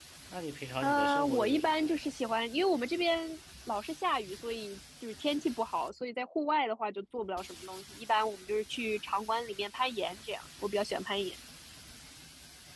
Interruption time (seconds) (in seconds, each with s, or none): 0.8 s